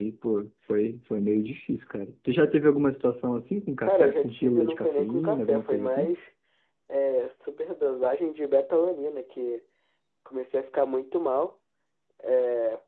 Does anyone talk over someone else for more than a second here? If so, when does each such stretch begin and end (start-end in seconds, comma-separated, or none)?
3.8-6.1